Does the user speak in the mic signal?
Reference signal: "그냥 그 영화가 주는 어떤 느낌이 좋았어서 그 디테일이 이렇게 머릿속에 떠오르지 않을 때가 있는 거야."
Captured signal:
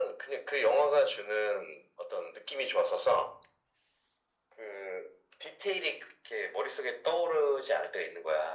No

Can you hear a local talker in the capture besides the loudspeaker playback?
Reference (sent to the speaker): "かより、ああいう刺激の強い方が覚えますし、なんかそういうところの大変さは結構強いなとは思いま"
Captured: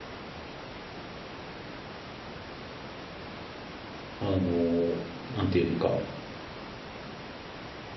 Yes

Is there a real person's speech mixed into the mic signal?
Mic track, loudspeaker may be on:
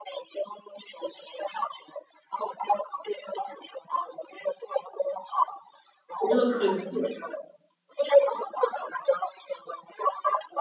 Yes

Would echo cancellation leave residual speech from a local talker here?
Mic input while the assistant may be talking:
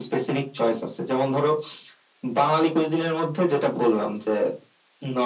No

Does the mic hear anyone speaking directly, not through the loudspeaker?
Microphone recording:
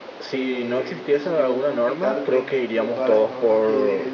Yes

